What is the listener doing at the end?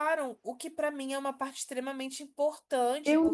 taking over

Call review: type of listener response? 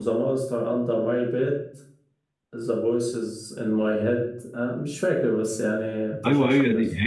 taking over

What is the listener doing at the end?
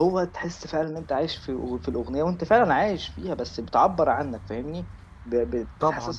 listening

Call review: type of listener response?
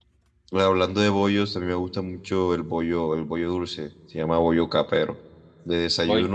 listening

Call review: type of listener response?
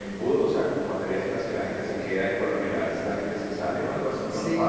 taking over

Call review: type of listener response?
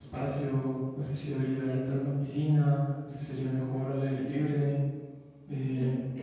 taking over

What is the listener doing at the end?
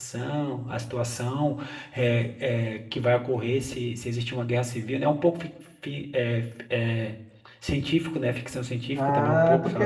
taking over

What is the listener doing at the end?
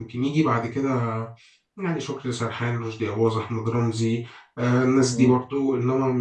listening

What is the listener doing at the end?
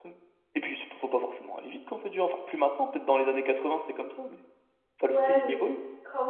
taking over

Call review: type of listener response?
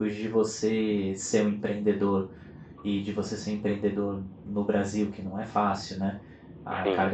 listening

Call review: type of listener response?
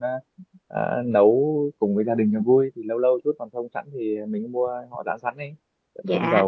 taking over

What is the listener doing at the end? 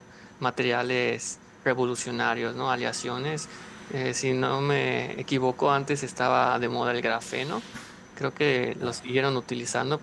listening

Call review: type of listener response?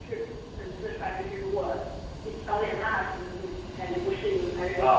taking over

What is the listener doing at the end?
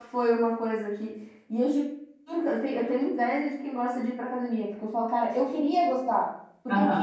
listening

